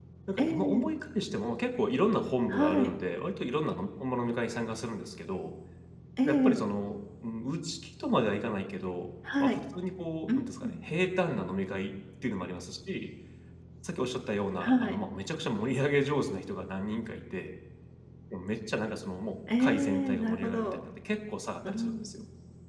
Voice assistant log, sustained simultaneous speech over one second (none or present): present